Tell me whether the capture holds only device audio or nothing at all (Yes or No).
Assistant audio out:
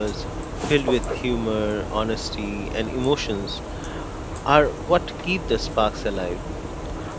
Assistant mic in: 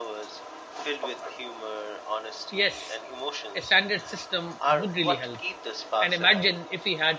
No